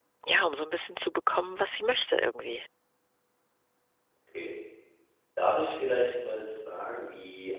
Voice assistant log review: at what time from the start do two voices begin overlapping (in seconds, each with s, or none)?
none